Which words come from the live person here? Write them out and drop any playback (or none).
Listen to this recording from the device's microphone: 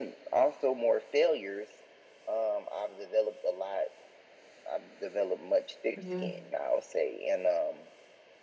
Yeah.